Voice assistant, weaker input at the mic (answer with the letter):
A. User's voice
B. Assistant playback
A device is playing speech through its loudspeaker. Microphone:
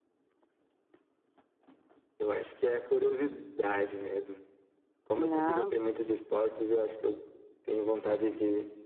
B